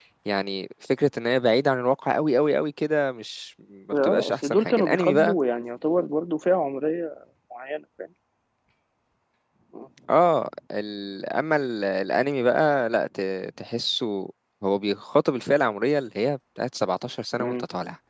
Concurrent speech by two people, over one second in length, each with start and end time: 4.0-5.4

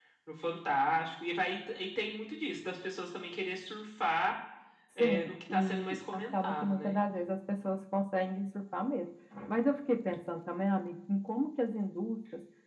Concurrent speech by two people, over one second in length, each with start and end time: 5.0-7.0

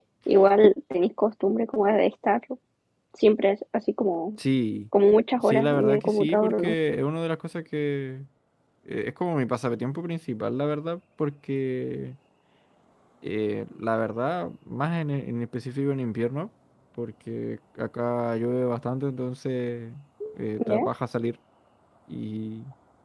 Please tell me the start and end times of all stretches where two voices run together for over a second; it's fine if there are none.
5.4-6.7

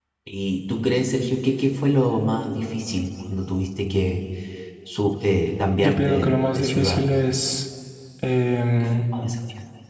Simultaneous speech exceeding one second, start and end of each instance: 5.8-7.0

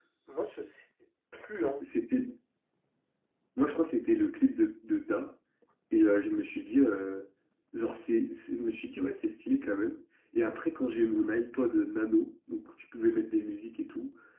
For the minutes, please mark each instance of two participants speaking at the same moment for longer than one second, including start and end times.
none

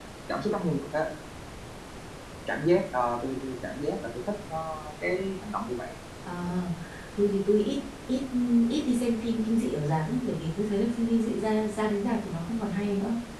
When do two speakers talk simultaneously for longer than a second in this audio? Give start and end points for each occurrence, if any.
none

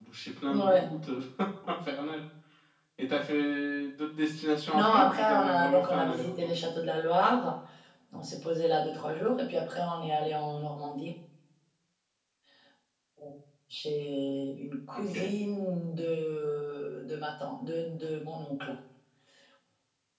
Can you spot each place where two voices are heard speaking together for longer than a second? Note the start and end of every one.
4.7-6.5

